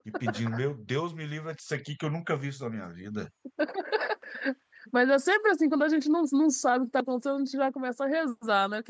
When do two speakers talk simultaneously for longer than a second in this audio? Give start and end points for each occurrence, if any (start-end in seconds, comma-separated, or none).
none